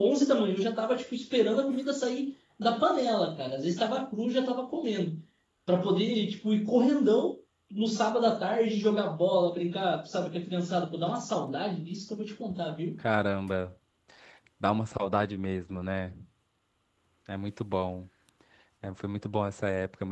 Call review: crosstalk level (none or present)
none